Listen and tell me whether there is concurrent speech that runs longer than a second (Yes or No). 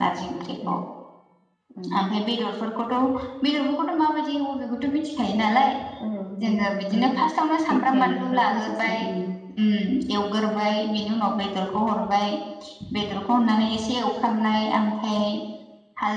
Yes